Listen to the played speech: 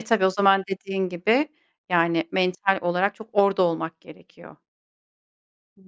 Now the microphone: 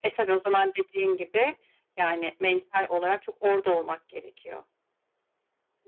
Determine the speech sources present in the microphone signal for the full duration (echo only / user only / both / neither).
echo only